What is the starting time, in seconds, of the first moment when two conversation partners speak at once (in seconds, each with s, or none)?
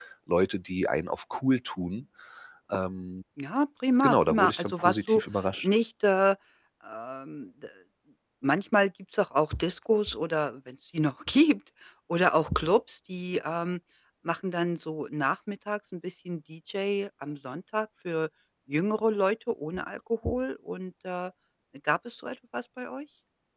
4.0 s